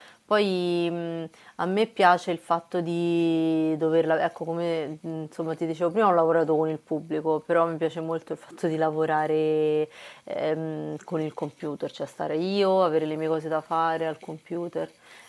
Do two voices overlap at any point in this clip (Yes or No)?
No